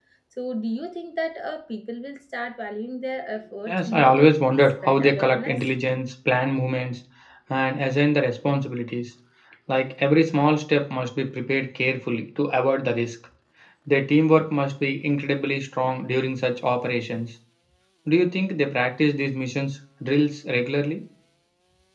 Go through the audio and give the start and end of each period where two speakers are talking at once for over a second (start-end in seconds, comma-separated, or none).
3.7-5.7